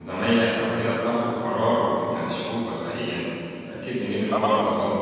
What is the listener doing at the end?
taking over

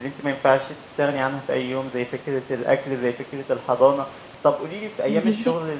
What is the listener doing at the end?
listening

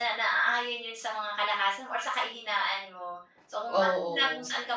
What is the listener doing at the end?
listening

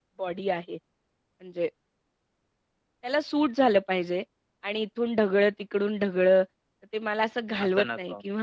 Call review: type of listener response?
listening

